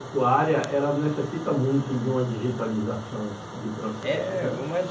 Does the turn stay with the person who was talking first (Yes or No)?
No